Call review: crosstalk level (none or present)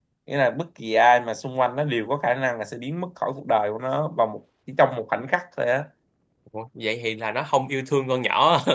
none